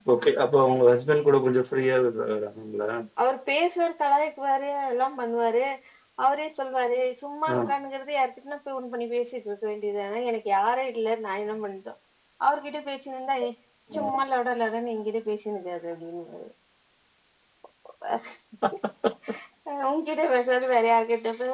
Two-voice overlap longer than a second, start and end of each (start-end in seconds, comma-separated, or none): none